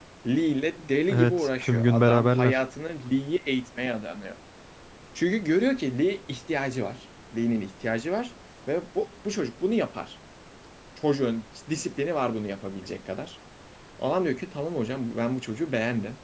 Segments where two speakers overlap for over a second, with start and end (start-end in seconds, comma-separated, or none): 1.1-2.6